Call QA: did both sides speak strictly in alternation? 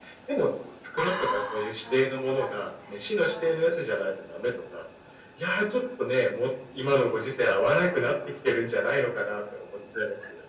No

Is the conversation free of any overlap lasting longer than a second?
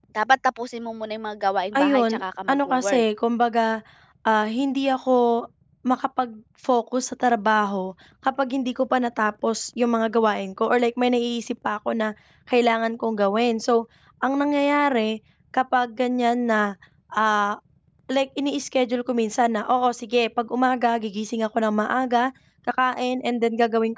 No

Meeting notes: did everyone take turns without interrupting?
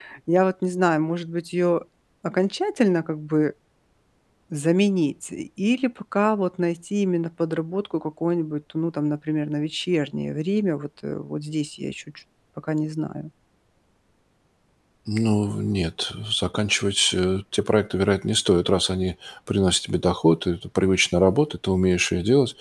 Yes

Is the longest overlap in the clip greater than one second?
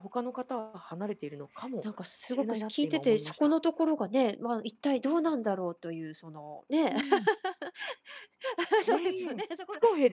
Yes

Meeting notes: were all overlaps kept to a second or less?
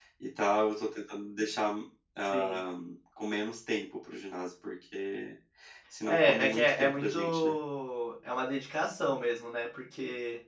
No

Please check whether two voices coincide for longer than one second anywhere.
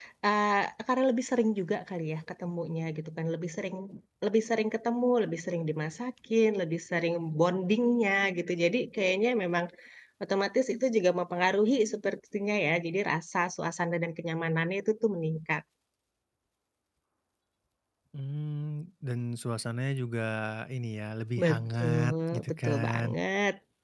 Yes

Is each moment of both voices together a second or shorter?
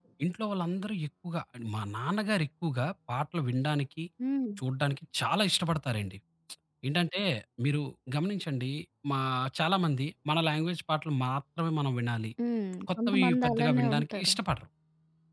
No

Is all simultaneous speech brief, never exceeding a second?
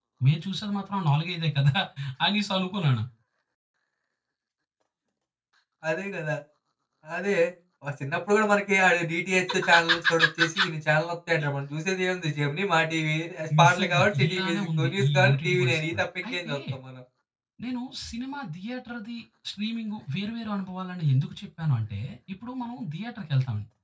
No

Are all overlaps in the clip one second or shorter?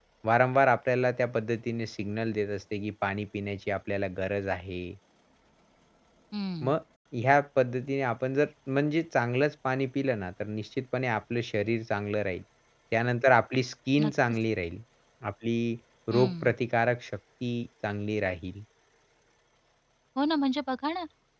Yes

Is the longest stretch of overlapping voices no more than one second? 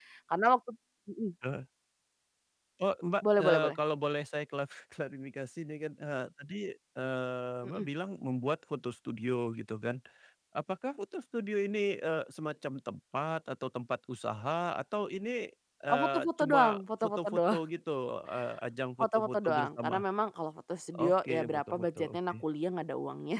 No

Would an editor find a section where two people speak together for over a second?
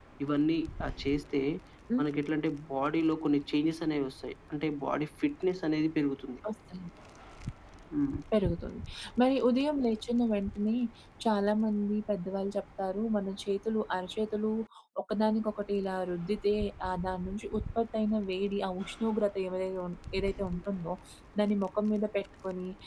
No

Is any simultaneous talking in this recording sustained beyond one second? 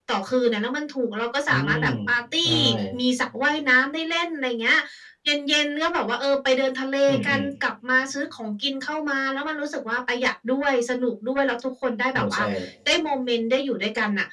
No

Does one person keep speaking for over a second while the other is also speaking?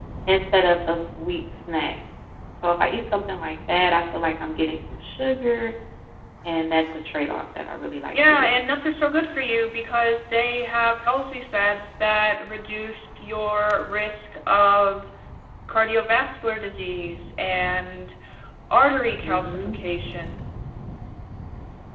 No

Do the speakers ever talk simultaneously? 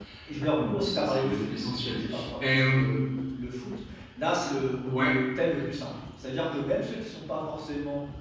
Yes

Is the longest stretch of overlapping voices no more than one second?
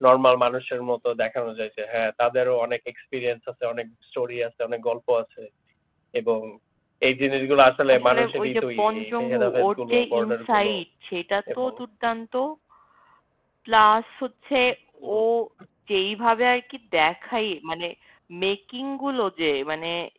No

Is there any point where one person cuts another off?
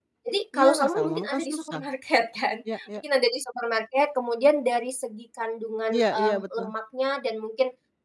Yes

